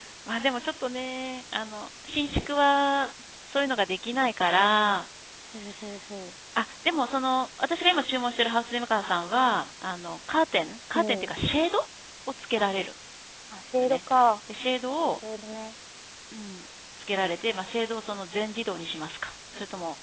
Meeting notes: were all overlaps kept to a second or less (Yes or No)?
Yes